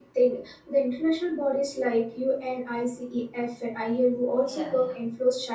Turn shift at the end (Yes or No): No